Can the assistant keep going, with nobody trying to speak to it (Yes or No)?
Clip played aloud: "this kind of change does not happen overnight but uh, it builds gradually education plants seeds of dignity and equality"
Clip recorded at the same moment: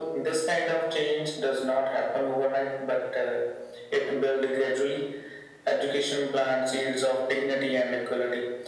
Yes